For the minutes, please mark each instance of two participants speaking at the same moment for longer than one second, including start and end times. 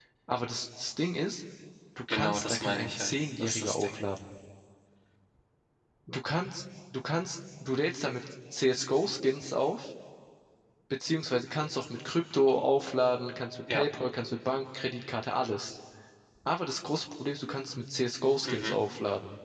2.1-4.0

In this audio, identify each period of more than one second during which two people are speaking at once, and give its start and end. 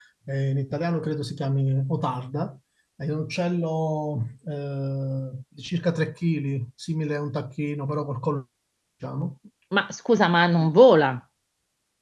none

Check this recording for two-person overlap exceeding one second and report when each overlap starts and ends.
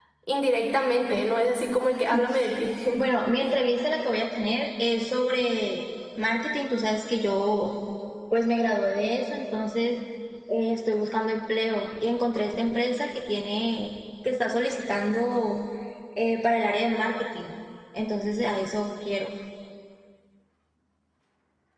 none

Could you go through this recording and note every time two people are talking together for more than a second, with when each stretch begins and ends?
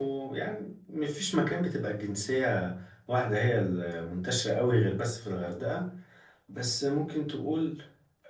none

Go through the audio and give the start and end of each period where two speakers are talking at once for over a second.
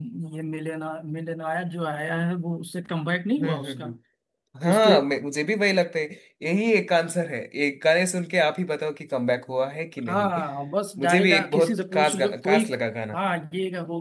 11.0-12.7

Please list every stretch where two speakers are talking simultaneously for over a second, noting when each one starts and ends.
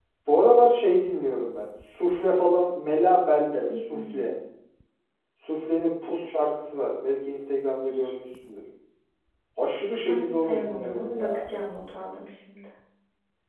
10.1-11.5

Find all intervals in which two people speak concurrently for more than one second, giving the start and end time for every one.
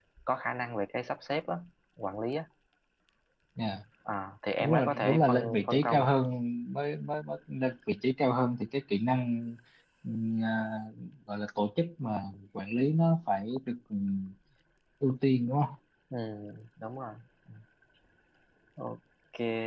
4.6-6.1

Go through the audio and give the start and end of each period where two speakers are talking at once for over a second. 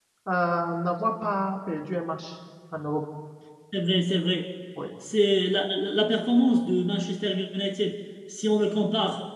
none

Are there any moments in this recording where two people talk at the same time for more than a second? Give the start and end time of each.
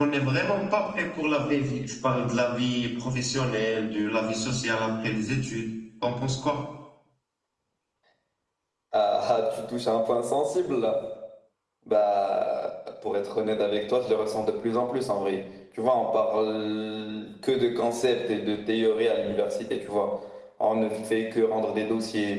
none

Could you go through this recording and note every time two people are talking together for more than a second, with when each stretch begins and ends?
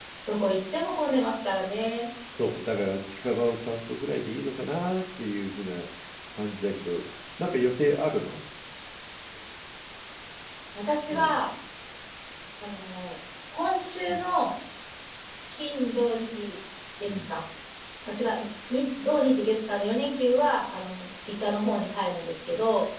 none

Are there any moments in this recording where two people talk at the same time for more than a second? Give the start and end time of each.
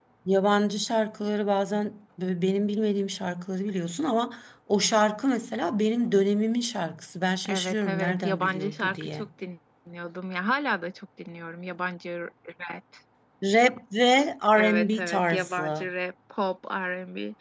7.5-9.3, 14.6-15.9

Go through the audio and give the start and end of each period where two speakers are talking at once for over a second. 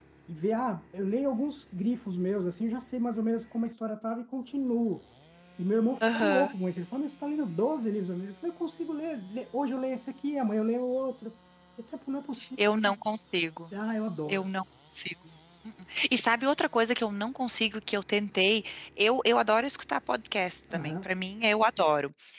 none

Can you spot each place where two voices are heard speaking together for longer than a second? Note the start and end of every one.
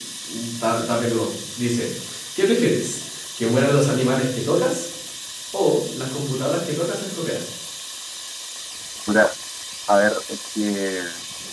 none

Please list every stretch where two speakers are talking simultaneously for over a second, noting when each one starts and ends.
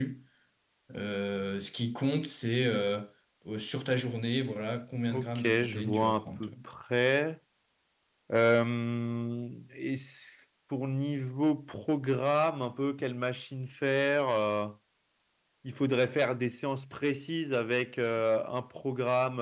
5.1-6.5

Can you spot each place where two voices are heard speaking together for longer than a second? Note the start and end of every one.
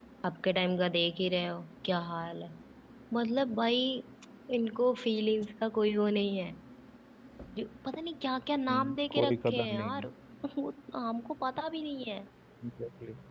8.7-10.1

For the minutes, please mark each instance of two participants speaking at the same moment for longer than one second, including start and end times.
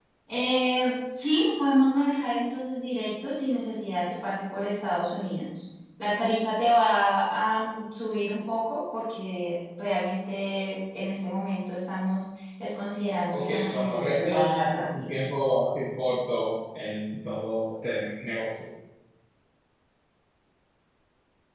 13.3-15.1

